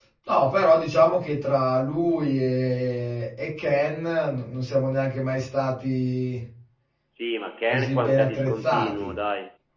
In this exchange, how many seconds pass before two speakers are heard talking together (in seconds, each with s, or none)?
7.7 s